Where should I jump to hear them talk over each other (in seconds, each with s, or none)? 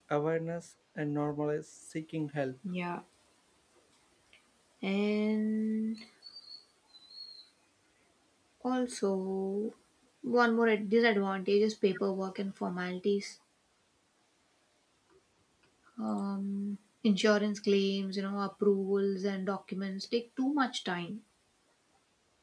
none